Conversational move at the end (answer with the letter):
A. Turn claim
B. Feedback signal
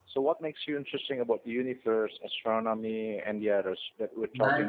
A